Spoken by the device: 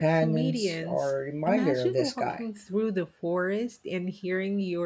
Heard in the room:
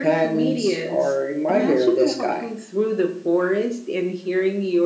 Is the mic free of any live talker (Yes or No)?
Yes